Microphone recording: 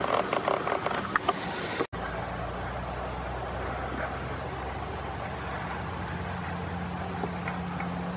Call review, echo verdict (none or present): none